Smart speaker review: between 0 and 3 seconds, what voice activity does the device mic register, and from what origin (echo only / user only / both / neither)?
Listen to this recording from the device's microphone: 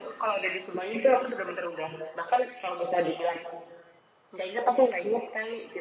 echo only